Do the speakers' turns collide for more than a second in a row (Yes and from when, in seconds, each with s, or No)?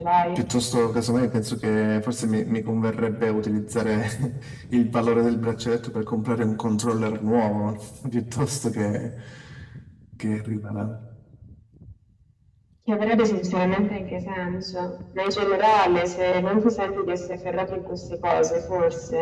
No